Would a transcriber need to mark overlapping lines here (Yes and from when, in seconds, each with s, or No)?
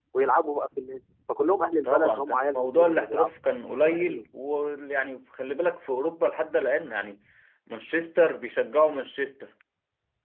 Yes, from 1.8 s